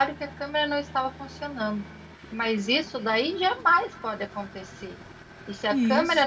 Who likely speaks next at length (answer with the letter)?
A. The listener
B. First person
B